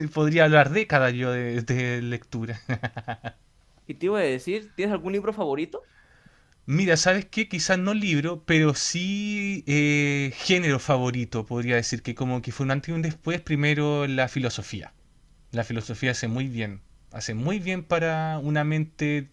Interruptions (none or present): none